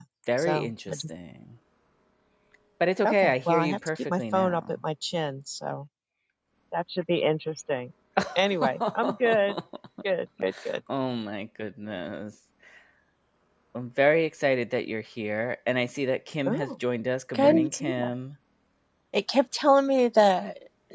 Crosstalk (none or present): present